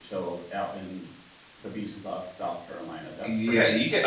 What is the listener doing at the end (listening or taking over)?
taking over